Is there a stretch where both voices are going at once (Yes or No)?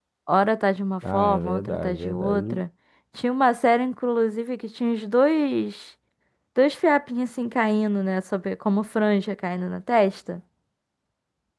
Yes